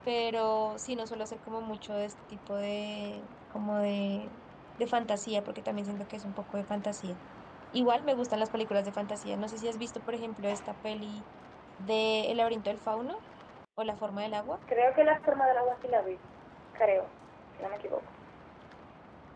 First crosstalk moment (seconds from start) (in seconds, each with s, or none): none